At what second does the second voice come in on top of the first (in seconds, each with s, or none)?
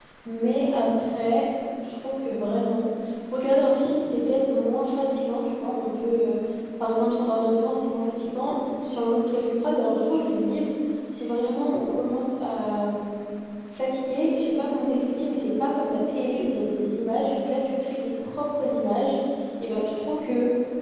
none